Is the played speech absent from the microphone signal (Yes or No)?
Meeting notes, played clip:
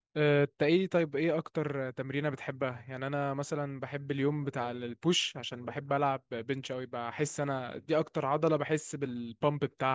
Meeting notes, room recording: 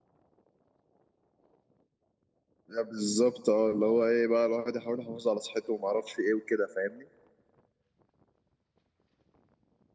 Yes